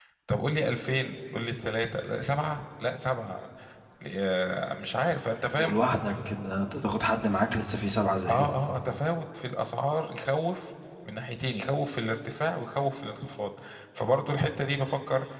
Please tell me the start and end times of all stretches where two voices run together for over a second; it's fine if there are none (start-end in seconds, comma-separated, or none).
none